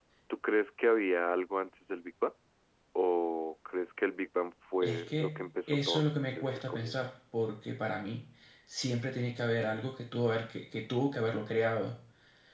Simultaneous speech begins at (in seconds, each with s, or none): 4.8 s